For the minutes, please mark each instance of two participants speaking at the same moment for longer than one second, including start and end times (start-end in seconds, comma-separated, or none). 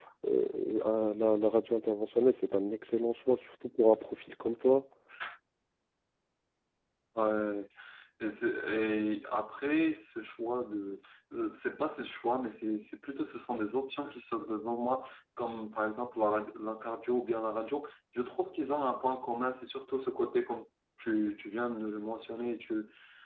none